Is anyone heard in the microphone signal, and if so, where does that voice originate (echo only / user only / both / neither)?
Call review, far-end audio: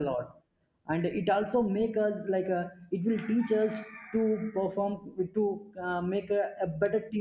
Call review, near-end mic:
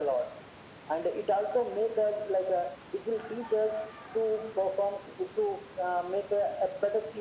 echo only